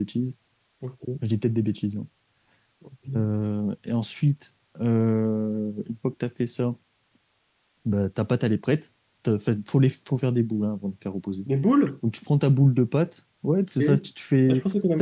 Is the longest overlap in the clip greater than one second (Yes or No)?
No